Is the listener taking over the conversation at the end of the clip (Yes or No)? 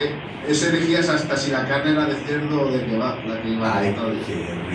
Yes